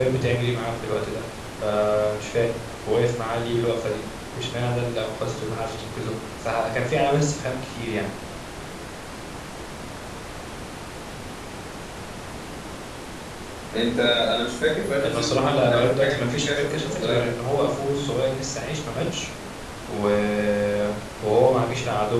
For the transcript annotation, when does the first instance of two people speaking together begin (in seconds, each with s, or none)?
15.0 s